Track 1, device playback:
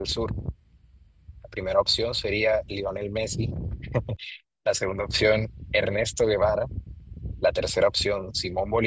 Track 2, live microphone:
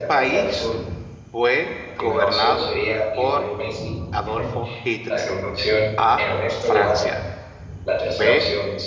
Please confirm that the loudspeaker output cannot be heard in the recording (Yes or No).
No